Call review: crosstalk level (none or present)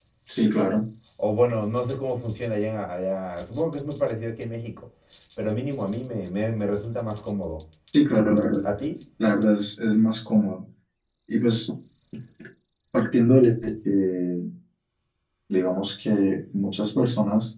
none